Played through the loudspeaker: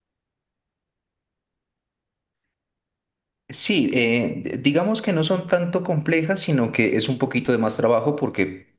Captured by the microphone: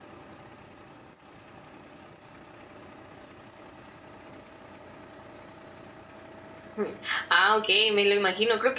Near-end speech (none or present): present